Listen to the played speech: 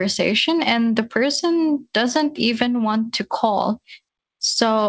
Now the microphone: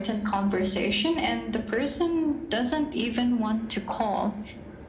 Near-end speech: none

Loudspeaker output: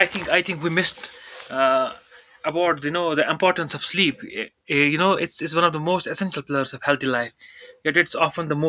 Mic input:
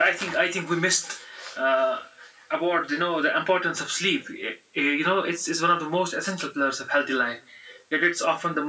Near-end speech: none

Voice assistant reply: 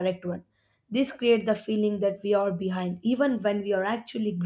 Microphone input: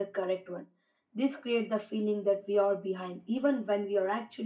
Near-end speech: none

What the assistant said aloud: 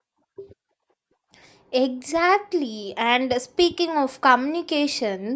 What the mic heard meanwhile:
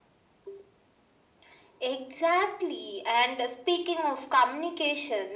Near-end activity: none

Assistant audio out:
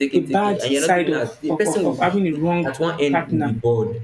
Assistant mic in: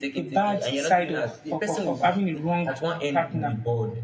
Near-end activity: none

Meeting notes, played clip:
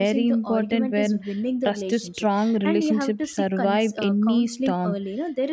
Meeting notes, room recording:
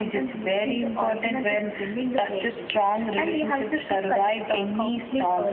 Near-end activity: none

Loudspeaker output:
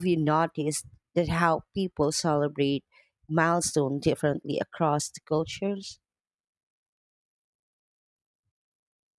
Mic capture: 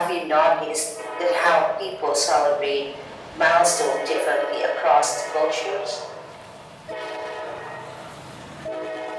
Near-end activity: none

